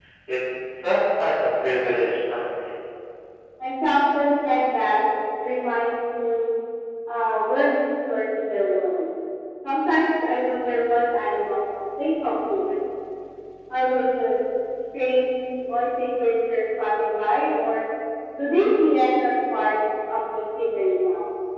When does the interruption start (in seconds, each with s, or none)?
none